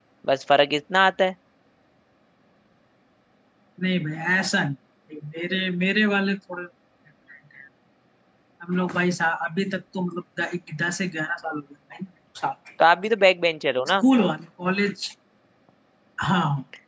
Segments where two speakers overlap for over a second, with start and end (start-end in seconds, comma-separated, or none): none